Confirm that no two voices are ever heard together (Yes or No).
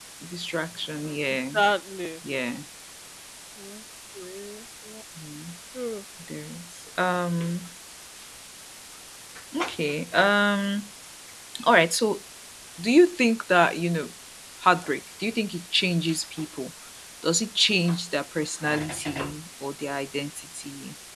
Yes